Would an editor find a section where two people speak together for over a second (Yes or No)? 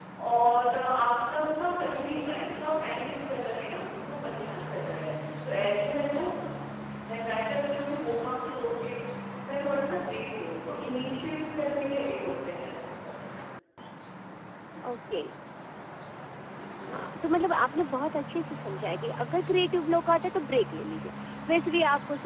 No